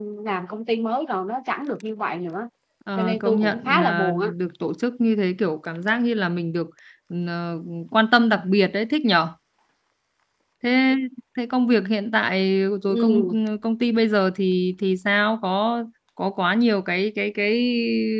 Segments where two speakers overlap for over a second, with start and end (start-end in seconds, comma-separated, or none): 3.0-4.3